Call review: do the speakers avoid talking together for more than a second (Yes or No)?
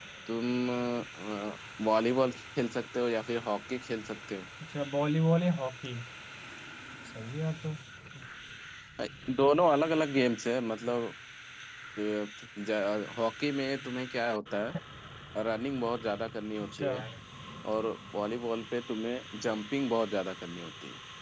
Yes